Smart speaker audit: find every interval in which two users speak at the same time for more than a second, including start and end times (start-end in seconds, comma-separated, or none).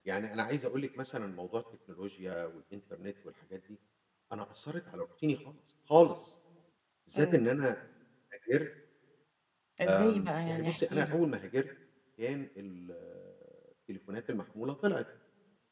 9.8-11.2